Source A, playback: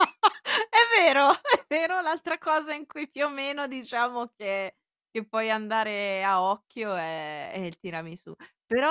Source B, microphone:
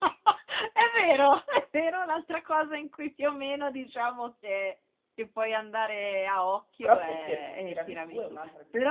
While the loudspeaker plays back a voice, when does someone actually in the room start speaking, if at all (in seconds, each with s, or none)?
6.8 s